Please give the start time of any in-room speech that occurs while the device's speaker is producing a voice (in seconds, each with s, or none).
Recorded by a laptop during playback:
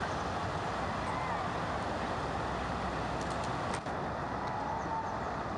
none